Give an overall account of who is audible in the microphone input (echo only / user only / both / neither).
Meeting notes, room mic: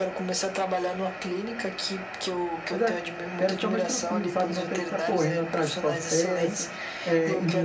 both